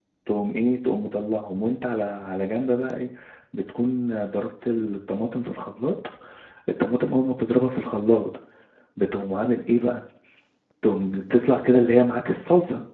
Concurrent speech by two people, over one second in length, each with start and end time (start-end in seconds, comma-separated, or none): none